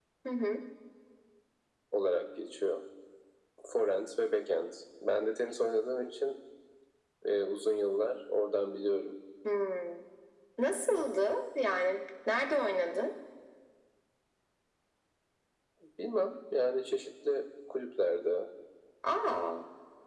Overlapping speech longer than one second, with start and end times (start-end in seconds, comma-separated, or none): none